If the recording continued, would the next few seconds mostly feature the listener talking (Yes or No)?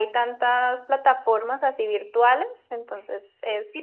Yes